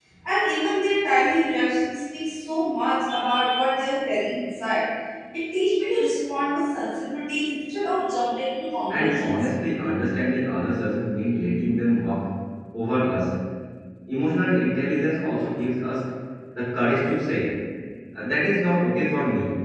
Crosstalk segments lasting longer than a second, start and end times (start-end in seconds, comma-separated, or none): none